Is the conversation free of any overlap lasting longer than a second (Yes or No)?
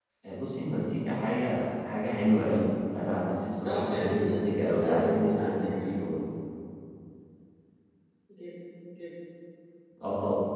No